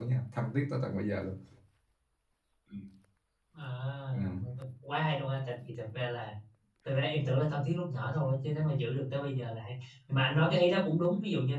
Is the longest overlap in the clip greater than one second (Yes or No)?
No